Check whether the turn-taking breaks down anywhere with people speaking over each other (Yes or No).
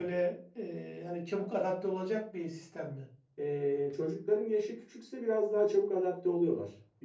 No